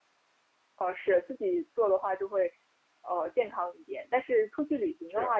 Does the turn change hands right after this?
No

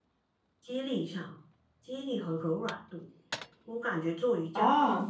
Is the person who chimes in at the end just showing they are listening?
Yes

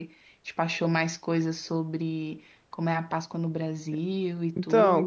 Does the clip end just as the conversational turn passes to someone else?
Yes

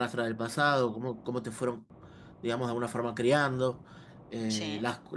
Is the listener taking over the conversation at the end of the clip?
No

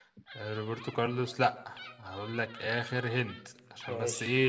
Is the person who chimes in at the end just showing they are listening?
Yes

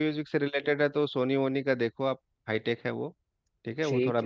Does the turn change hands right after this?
No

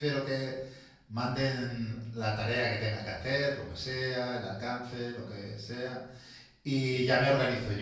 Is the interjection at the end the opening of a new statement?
No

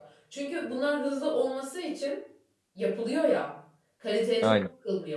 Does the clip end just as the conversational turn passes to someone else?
No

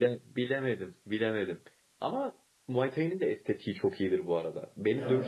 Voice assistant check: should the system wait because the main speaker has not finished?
Yes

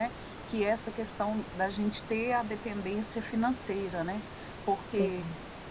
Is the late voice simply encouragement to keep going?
Yes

